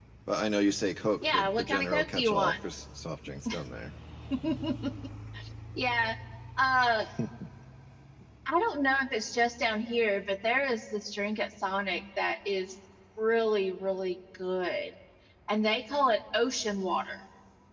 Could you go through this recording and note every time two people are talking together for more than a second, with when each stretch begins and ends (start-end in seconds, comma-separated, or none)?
1.3-2.5